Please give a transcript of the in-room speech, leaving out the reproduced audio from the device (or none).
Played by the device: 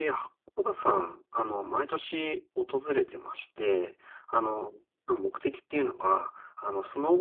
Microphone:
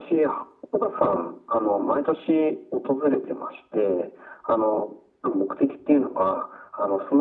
none